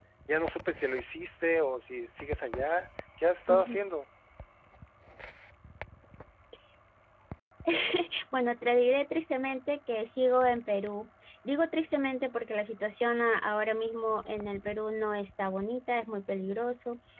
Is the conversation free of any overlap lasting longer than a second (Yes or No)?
Yes